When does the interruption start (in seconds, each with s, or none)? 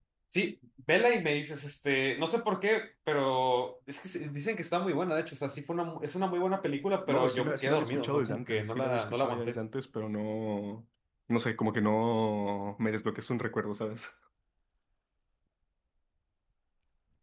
7.1 s